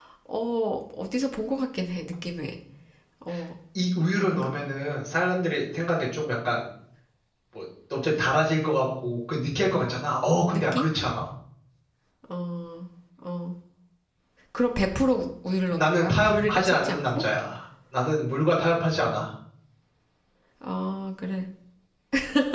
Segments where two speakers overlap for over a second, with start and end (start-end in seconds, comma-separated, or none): 15.8-17.2